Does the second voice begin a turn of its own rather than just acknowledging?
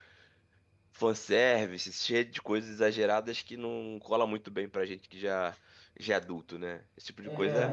Yes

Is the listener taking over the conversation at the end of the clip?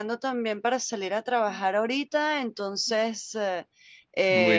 No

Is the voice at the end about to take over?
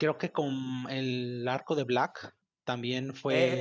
Yes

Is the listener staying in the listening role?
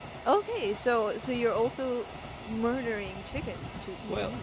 No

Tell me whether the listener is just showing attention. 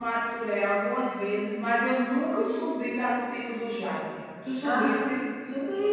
No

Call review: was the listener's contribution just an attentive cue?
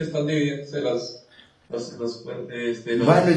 No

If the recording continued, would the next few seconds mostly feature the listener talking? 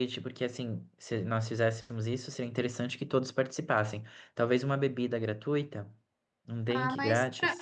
Yes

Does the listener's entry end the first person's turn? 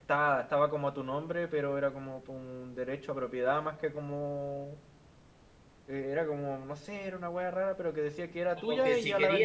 Yes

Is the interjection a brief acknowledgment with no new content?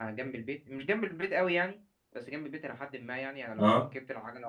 Yes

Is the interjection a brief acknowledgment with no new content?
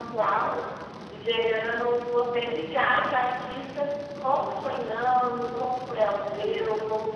Yes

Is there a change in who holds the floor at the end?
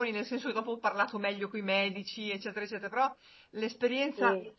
No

